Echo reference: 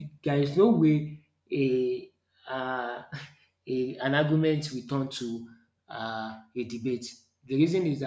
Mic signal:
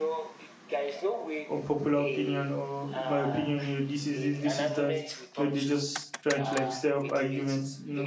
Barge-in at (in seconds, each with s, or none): 1.5 s